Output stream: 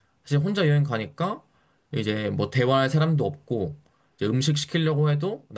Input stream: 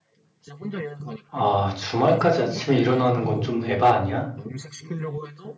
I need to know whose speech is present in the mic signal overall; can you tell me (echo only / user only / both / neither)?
both